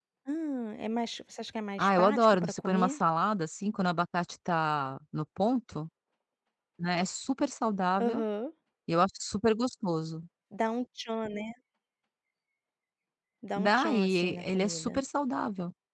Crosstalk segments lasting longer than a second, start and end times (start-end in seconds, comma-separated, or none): 1.8-3.0, 13.6-15.0